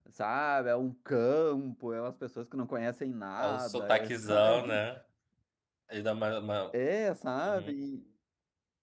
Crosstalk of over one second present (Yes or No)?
Yes